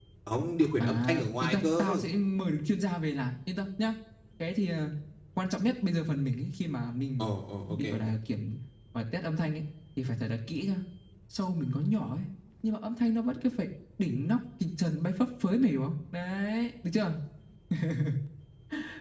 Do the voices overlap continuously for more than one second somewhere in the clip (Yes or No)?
Yes